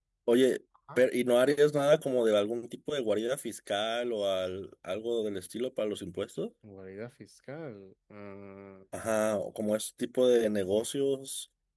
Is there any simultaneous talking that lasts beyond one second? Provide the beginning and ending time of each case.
none

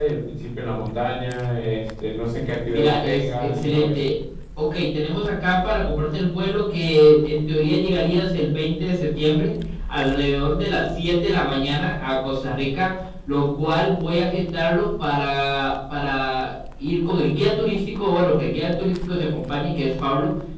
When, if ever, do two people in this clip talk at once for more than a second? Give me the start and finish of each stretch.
2.7-4.0

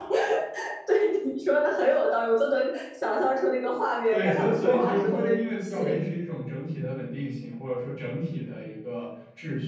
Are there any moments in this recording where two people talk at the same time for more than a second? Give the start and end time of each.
4.1-5.8

